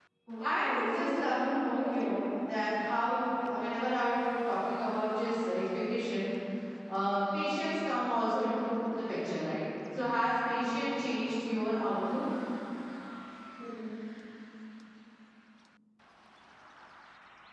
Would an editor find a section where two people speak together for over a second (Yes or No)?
Yes